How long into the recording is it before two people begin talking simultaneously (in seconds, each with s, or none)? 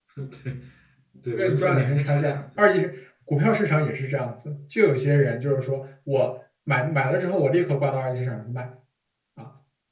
1.4 s